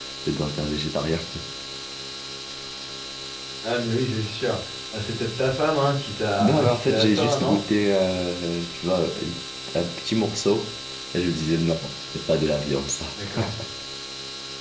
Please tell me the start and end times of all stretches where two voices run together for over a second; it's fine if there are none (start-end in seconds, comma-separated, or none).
6.4-7.6